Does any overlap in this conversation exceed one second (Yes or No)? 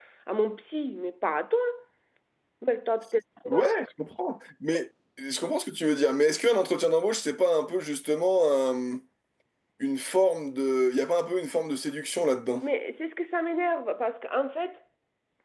No